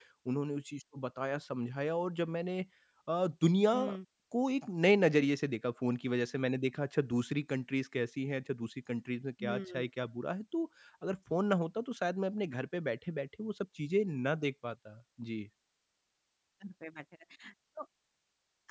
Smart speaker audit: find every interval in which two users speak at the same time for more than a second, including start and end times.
none

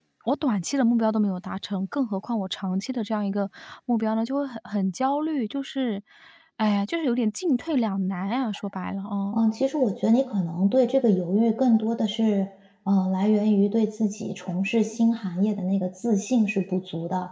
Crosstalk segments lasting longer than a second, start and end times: none

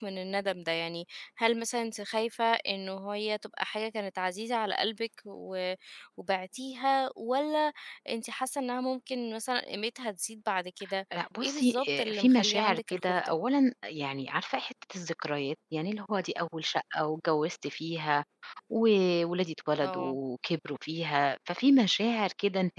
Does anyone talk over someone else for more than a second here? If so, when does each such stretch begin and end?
11.1-13.3

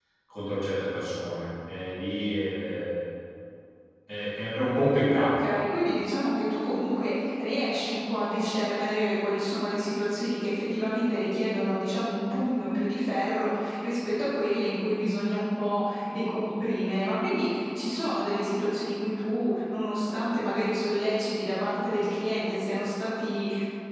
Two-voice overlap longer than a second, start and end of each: none

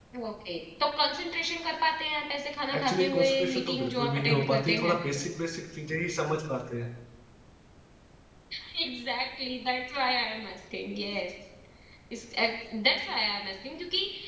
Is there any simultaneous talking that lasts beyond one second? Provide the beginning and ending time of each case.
2.8-5.0

